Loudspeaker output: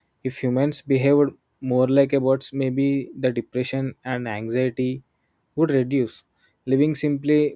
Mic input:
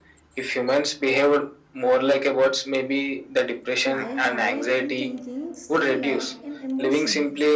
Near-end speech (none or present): present